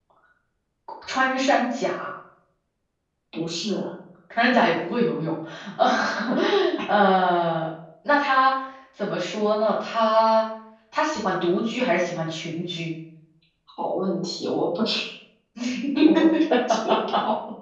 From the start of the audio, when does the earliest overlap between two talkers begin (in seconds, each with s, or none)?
none